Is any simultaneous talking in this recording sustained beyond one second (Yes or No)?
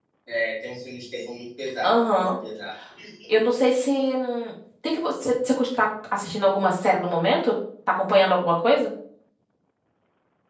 No